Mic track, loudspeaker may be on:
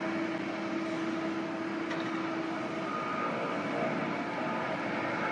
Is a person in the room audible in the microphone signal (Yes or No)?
No